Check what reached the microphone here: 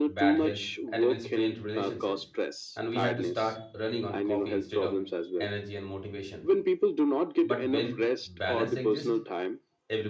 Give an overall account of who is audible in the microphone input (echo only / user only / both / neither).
both